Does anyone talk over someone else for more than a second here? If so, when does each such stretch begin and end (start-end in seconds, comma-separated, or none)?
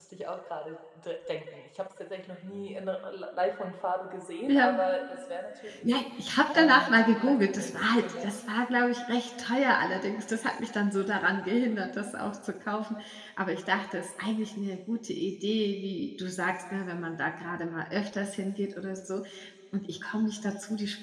6.5-8.3